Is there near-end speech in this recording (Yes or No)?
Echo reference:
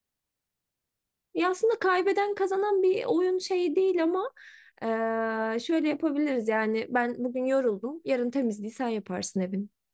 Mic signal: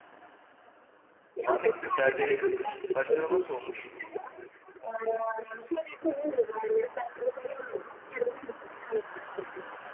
Yes